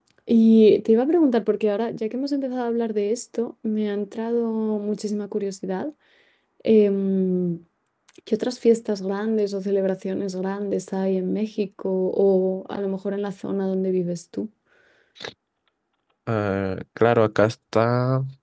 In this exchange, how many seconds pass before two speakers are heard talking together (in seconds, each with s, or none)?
none